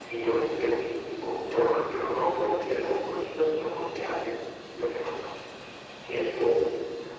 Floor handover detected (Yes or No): Yes